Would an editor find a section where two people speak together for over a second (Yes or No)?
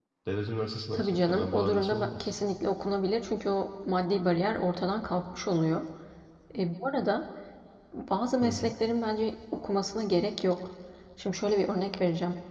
Yes